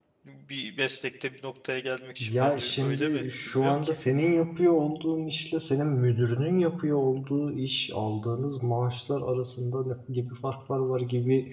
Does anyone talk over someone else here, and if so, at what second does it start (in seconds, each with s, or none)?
2.2 s